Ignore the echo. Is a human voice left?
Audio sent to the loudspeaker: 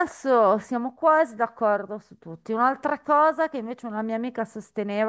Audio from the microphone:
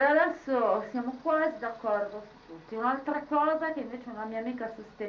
No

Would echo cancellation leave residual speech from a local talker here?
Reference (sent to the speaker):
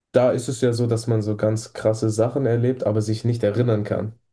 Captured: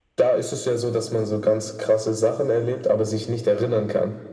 No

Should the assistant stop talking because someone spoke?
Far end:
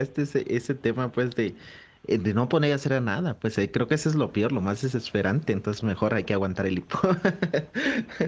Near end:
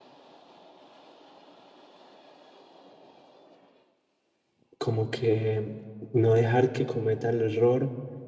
Yes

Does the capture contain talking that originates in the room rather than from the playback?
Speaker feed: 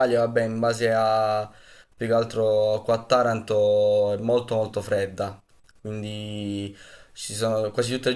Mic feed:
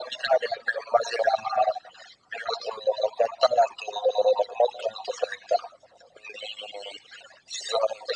No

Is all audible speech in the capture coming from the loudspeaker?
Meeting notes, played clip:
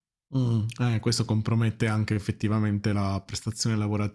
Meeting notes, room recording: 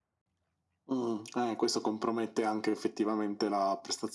Yes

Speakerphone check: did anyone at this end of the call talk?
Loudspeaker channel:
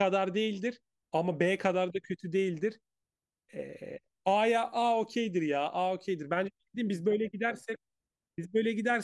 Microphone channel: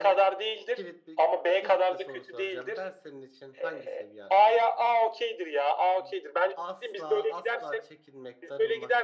Yes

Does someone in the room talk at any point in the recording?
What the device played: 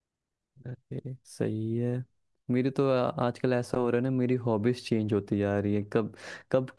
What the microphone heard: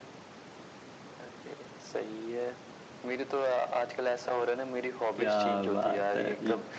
Yes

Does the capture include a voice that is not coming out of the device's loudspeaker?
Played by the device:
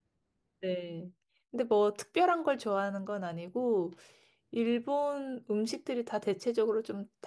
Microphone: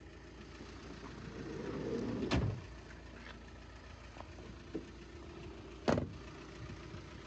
No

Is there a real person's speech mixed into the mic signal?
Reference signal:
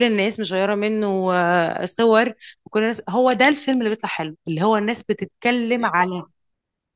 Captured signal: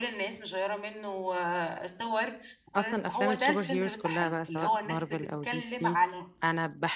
Yes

